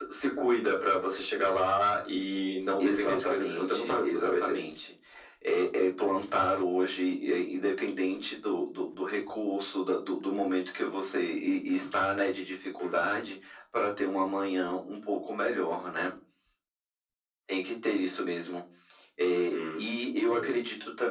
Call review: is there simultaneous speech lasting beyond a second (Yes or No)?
Yes